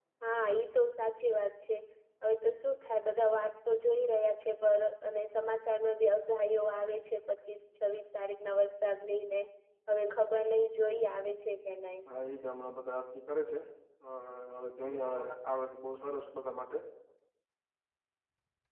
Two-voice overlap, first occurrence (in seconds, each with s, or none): none